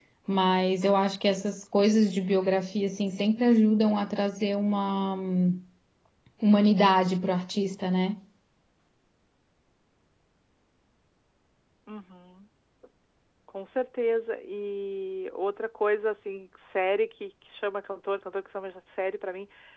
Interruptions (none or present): none